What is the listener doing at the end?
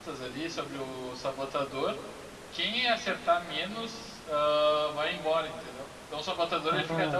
taking over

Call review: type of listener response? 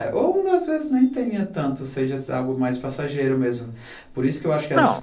listening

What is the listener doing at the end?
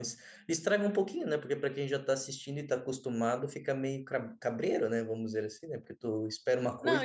taking over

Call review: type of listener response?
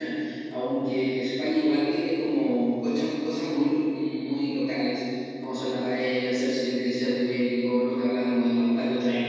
listening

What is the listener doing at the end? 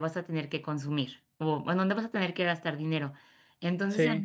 listening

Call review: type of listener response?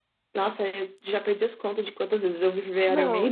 taking over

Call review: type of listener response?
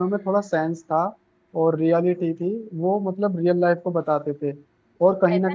taking over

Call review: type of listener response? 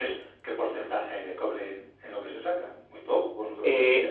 taking over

